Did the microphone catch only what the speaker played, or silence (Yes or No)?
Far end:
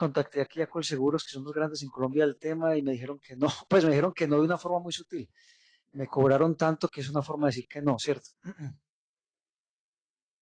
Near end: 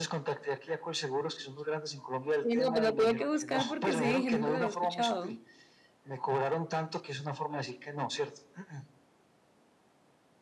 No